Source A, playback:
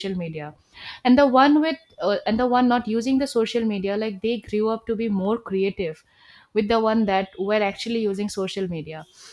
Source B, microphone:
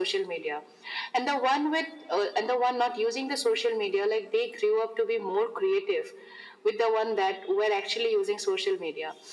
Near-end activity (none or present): none